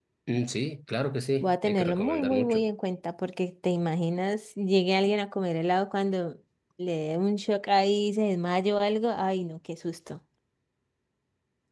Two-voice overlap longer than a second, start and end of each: 1.4-2.6

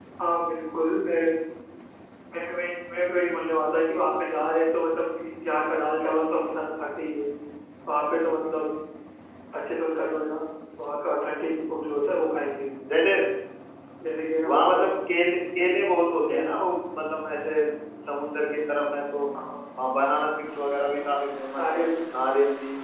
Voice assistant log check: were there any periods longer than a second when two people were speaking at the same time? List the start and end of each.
none

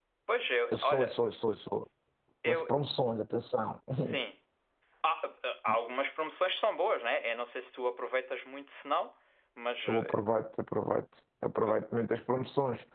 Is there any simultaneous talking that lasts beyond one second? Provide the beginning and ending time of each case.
none

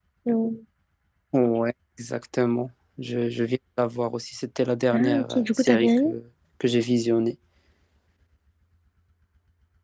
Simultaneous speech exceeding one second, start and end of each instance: 4.9-6.1

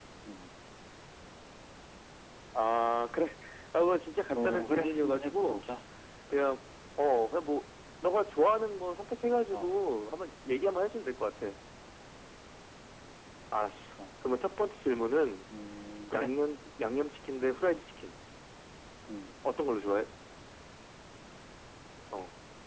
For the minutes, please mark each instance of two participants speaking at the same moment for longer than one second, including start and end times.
4.3-5.6

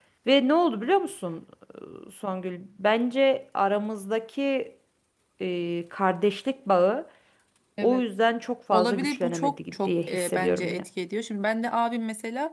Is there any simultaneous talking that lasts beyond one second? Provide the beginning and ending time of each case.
8.7-10.8

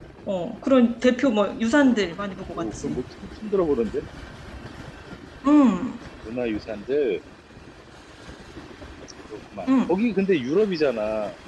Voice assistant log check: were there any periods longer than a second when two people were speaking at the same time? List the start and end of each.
none

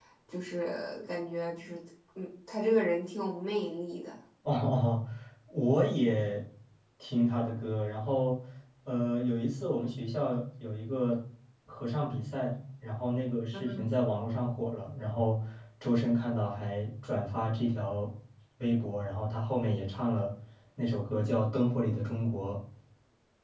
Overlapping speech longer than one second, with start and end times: none

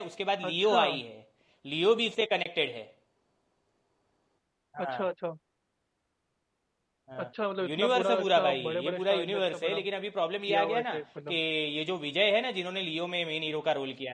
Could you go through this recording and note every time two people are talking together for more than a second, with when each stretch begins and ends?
7.7-9.8

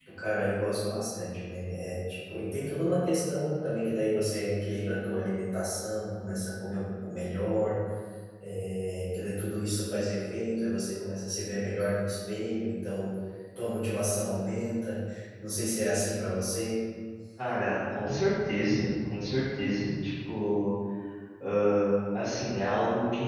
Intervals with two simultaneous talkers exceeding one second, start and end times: none

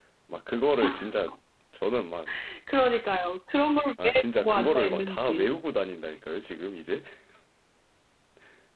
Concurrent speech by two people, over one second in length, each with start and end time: 4.0-5.5

